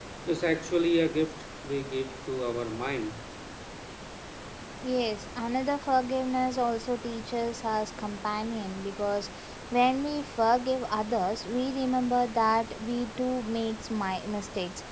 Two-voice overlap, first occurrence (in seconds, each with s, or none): none